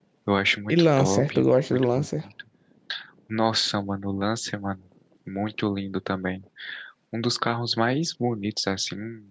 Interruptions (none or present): present